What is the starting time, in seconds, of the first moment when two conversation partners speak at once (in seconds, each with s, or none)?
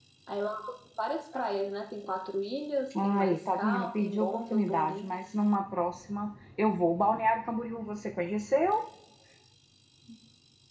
2.9 s